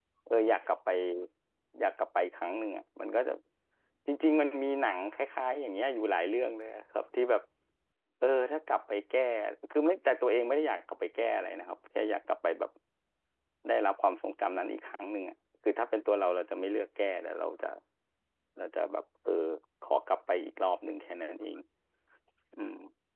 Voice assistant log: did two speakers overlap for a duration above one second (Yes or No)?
No